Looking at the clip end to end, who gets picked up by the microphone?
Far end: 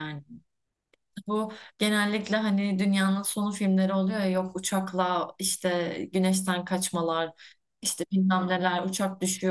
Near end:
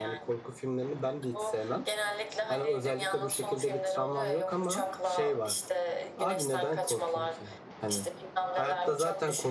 both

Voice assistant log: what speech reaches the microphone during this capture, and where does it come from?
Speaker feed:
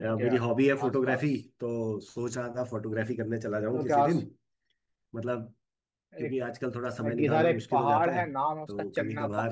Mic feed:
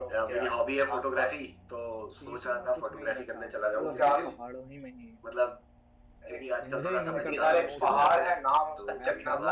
both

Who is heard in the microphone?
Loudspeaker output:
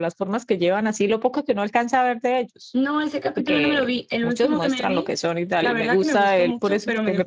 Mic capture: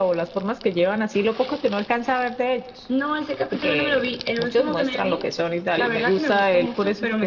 echo only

